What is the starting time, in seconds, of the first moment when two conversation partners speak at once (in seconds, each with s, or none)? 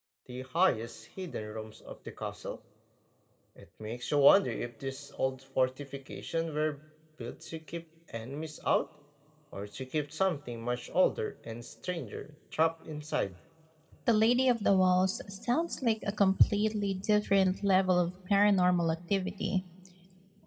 none